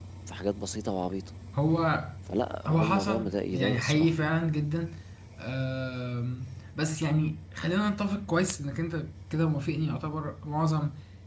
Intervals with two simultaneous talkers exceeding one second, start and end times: 2.7-4.1

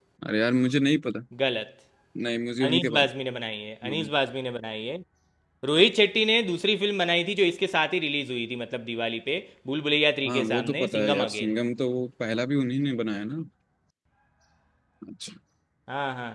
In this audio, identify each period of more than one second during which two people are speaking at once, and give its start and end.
10.3-11.5

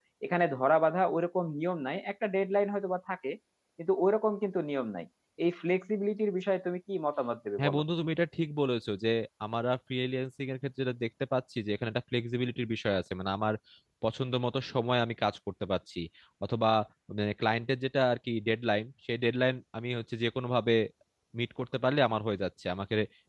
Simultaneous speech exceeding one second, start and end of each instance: none

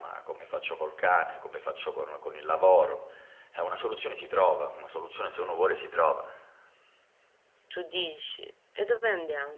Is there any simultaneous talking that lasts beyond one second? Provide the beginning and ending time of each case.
none

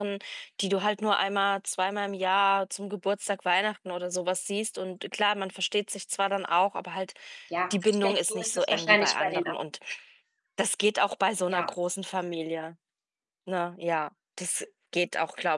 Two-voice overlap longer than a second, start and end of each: 7.7-9.6

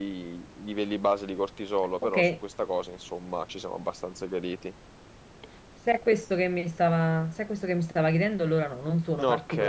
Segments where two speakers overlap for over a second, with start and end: none

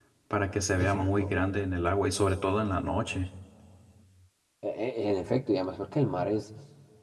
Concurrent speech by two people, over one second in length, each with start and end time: none

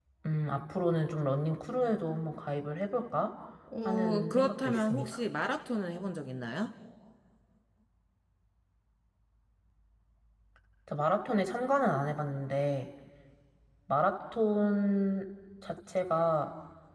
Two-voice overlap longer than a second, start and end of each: 3.9-5.2

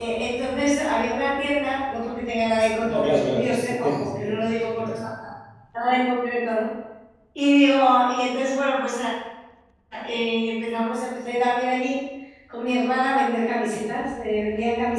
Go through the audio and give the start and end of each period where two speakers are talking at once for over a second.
2.8-5.0

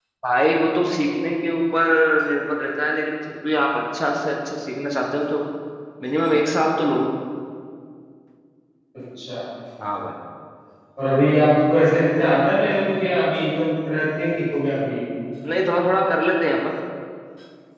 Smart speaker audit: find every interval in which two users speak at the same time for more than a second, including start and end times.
none

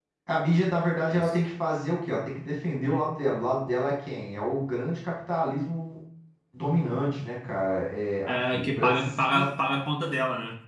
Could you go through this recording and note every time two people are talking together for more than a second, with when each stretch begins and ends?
8.3-9.5

